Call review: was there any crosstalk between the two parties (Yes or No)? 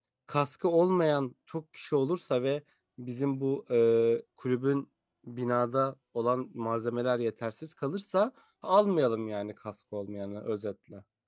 No